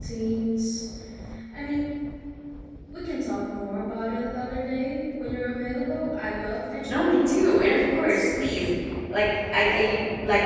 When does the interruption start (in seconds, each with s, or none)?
6.8 s